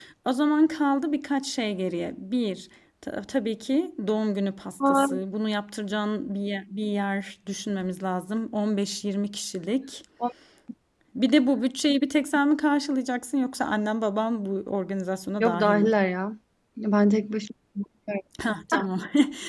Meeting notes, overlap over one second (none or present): none